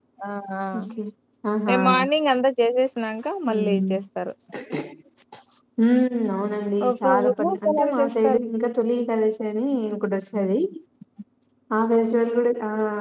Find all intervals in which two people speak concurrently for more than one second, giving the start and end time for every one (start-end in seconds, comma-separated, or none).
6.9-8.4